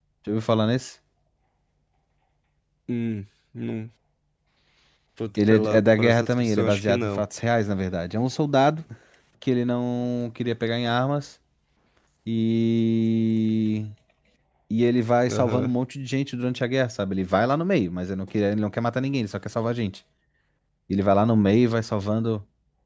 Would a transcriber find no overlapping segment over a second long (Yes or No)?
No